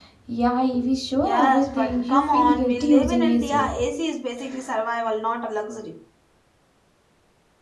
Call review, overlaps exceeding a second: present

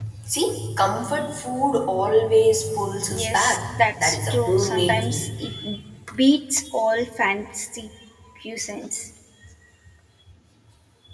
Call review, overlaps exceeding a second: present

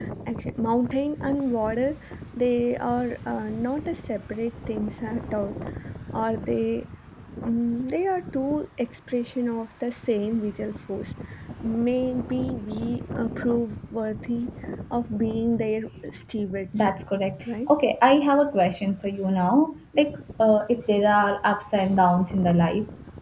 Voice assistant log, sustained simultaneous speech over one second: none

